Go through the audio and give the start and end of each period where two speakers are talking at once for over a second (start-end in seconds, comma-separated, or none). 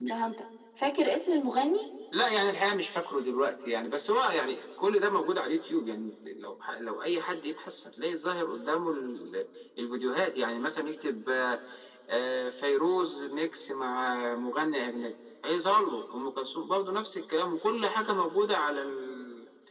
none